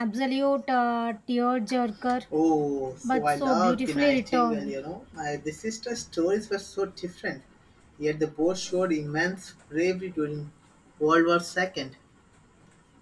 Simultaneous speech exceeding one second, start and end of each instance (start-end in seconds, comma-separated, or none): 3.1-4.6